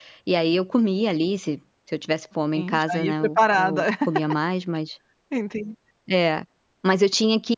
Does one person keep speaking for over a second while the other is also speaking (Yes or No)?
Yes